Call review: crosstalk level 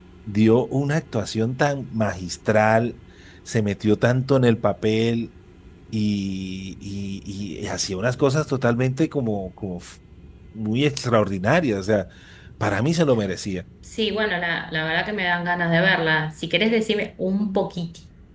none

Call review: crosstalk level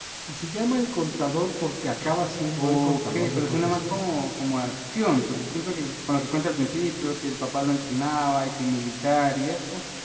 present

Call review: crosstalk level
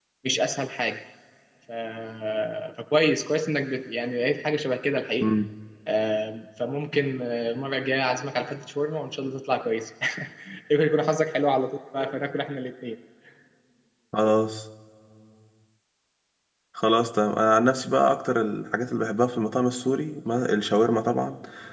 none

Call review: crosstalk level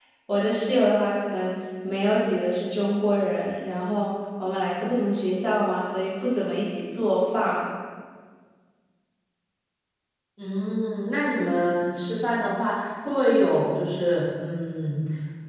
none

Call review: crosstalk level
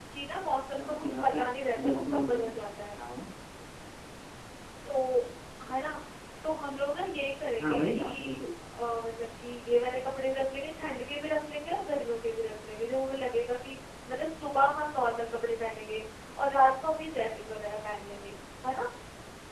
present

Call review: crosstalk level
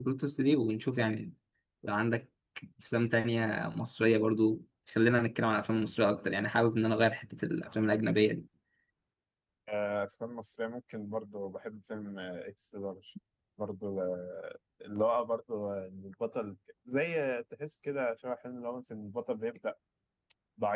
none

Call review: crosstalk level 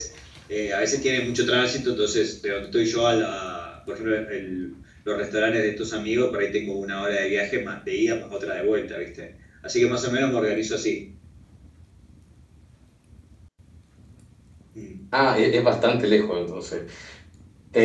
none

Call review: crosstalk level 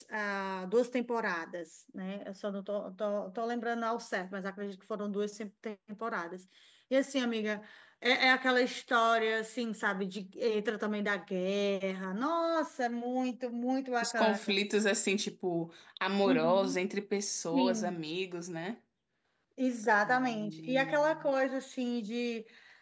present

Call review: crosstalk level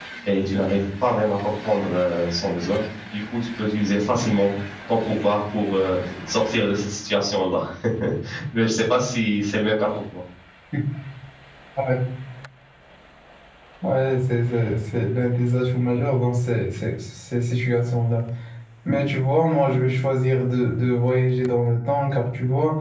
none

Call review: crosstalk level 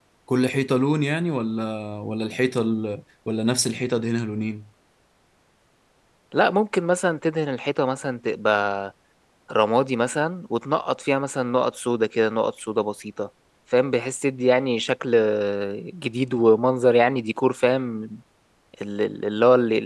none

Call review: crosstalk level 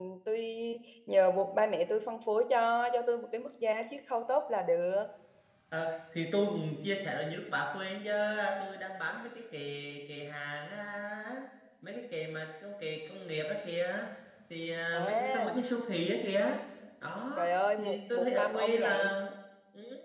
present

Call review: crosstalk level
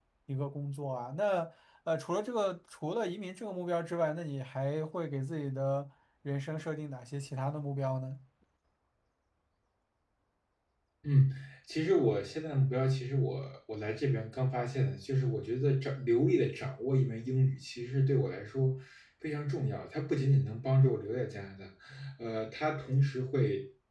none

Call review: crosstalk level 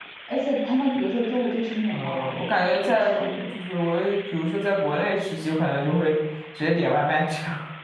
present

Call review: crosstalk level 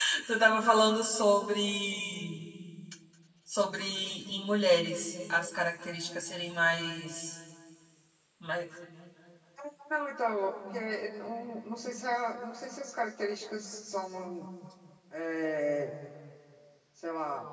none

